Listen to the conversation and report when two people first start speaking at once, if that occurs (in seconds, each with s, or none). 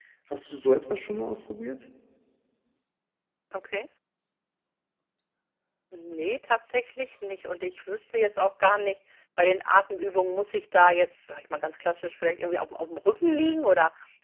none